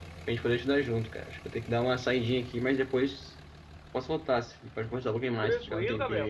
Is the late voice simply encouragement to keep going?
No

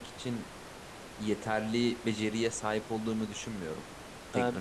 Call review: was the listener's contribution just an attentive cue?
No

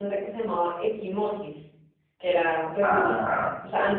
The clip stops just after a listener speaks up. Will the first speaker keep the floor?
Yes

